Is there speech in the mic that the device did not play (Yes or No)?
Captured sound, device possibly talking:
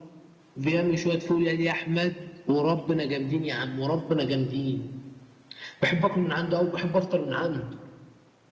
No